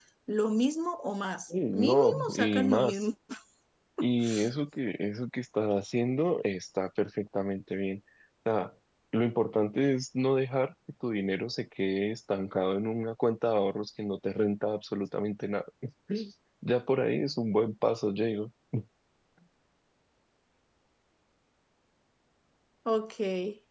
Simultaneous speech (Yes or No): Yes